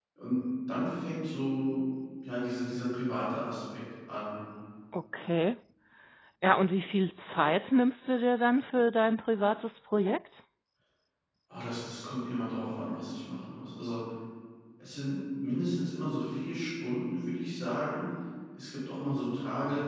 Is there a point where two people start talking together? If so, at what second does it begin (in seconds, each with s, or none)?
none